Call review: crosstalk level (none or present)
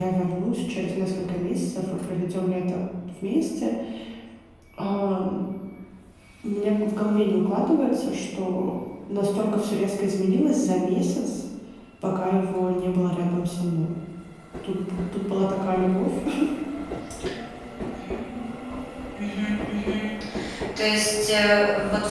none